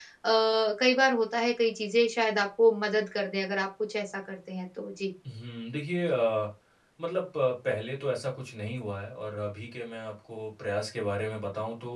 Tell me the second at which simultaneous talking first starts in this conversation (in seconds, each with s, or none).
none